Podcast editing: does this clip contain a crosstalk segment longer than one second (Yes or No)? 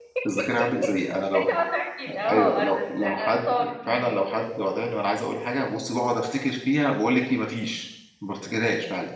Yes